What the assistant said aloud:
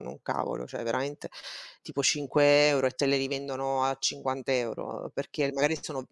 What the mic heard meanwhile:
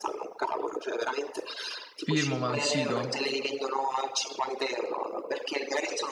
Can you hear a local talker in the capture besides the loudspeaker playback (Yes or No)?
Yes